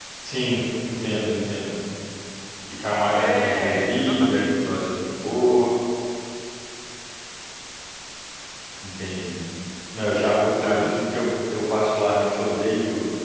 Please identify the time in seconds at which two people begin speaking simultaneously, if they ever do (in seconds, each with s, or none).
3.1 s